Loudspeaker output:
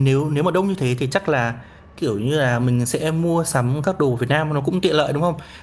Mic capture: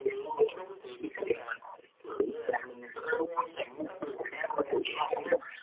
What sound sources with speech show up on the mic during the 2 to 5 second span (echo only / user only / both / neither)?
echo only